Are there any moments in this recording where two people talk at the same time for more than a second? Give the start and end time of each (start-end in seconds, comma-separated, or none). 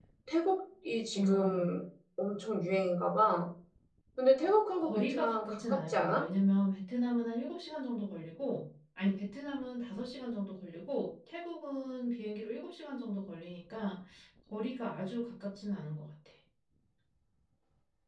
4.8-6.3